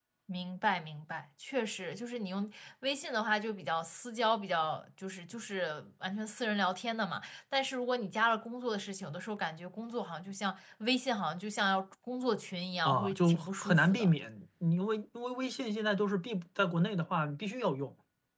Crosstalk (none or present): present